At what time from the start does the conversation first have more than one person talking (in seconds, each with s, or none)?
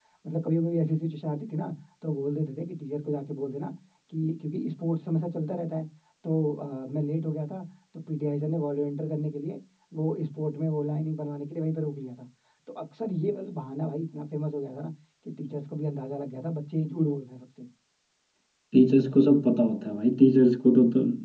none